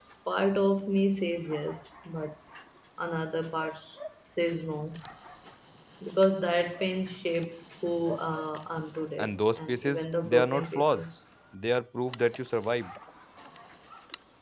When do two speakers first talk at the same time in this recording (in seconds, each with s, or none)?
9.2 s